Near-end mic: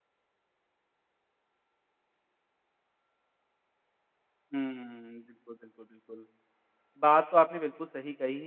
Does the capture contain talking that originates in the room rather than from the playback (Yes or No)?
Yes